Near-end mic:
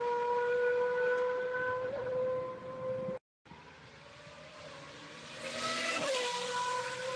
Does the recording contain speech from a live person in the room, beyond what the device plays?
No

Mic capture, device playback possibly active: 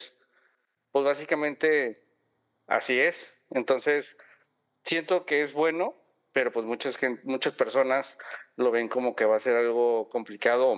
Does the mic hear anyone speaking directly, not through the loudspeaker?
No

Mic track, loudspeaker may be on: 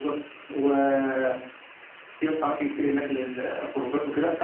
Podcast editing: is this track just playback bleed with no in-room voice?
Yes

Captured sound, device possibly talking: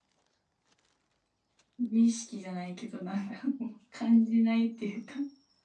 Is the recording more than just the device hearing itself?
Yes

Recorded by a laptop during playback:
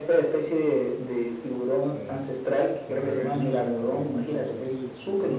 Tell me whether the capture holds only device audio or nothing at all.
No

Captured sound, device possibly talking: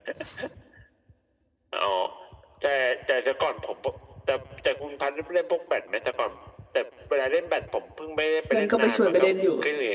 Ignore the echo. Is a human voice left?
Yes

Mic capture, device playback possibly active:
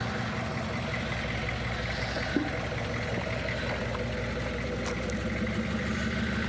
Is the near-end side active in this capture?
No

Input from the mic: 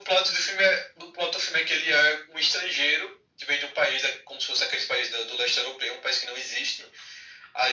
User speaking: No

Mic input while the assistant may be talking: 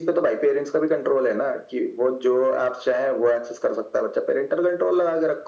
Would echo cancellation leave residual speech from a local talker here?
No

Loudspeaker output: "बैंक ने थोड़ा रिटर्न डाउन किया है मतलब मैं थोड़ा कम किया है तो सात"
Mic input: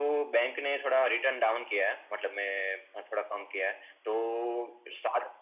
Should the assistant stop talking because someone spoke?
No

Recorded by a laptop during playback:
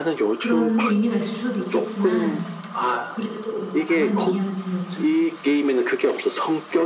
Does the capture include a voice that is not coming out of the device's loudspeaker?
Yes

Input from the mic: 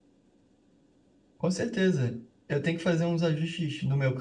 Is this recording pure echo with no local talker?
No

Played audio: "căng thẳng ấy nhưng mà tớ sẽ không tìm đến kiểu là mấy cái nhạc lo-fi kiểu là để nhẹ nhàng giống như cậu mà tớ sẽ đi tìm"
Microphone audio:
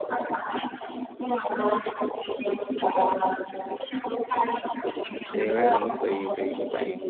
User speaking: Yes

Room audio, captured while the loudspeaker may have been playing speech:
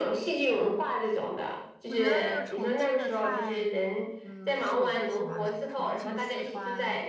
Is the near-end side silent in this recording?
No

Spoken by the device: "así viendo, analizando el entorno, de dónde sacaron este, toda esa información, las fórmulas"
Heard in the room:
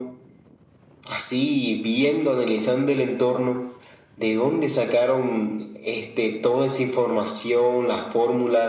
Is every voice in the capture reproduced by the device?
Yes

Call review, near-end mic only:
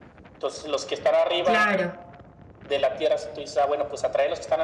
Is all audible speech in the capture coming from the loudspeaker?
No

